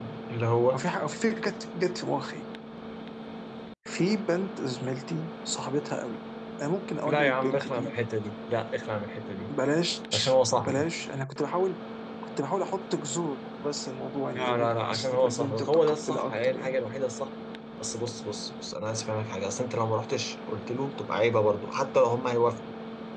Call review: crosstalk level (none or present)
present